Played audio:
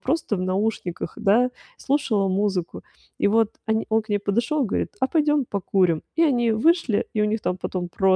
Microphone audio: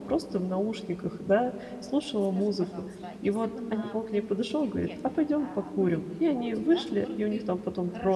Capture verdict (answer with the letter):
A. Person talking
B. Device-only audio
A